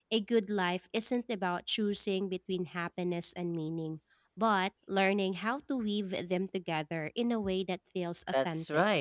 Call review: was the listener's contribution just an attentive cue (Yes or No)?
No